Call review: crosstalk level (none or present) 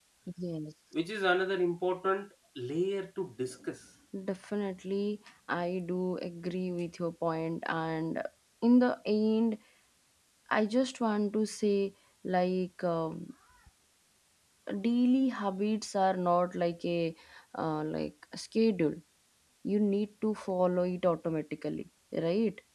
none